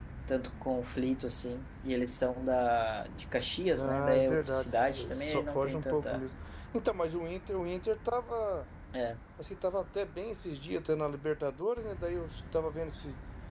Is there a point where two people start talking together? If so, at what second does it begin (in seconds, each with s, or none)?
3.8 s